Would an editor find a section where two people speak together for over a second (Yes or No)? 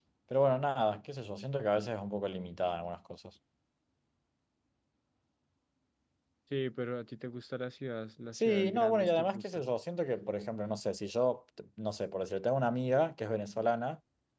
Yes